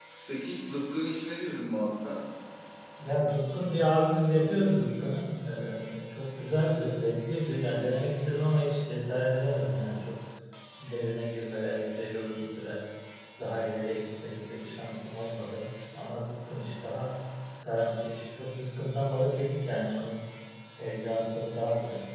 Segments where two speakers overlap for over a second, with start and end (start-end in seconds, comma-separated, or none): none